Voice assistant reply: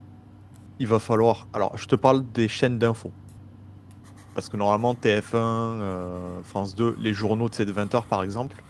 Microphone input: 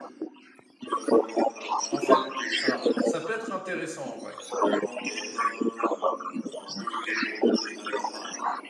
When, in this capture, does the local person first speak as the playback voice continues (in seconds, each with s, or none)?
1.9 s